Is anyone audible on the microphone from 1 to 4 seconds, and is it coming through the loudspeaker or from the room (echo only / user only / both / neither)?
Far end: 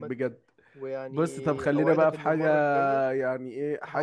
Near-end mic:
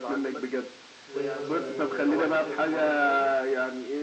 both